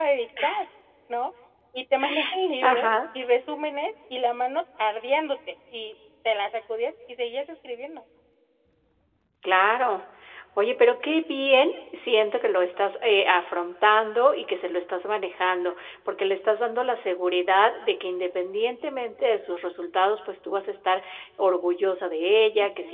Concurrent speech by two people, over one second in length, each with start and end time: none

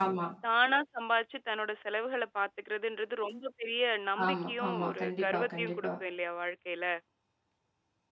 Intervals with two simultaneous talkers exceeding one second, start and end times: 4.3-5.9

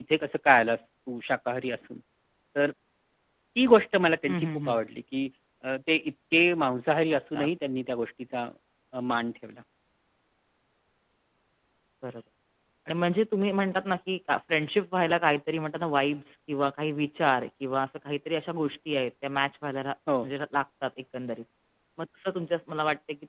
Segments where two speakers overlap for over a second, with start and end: none

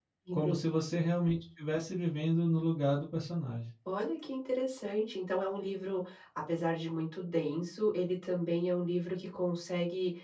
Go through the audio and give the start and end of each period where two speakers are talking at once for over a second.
none

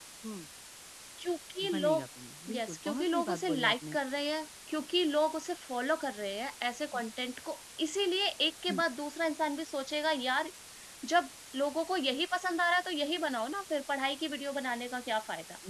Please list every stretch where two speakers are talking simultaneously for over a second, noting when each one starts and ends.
2.5-4.0

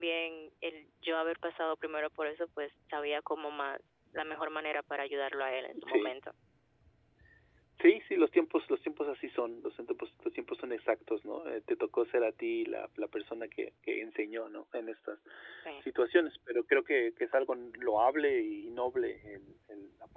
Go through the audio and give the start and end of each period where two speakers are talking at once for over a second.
none

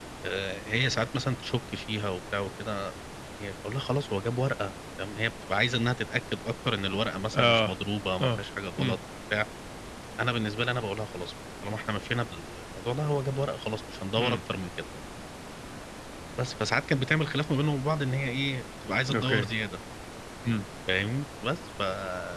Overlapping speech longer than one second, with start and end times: none

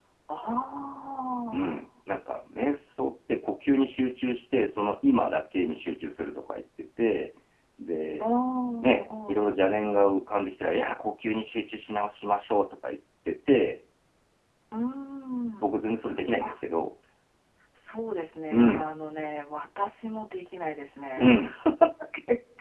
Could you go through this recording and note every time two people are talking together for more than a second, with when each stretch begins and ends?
8.8-10.1

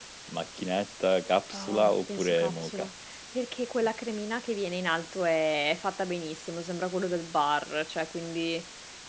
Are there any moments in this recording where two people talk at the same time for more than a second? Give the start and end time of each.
1.5-2.9

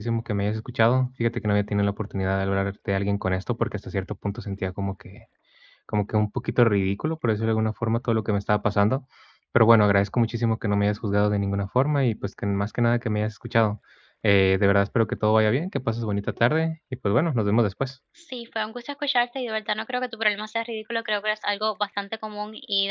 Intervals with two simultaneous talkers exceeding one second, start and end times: none

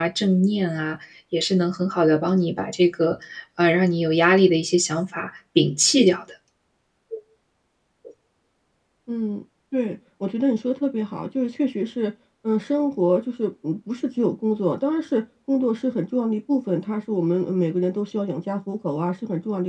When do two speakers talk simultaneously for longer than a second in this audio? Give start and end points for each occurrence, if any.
none

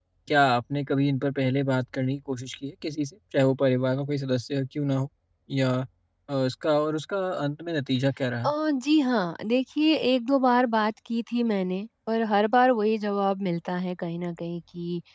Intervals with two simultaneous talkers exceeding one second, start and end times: none

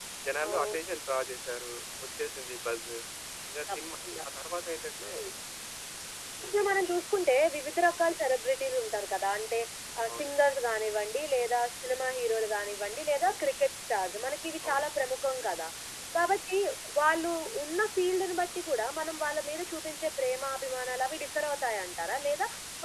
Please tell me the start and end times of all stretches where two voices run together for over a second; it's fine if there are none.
none

